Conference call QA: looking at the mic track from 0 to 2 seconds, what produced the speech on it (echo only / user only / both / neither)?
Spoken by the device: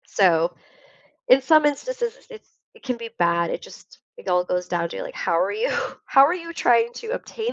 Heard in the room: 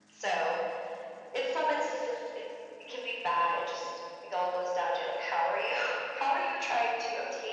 echo only